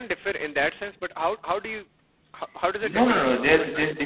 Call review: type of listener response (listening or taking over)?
taking over